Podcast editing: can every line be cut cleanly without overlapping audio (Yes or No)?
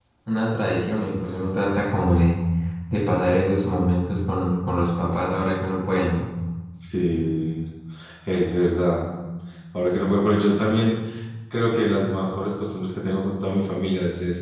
Yes